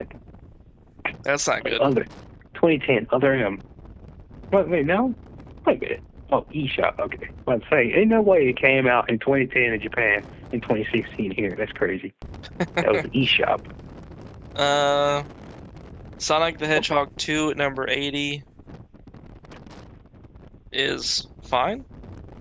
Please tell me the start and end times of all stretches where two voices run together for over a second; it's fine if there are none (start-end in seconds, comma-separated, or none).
none